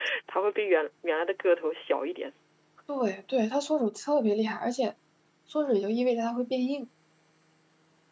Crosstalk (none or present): none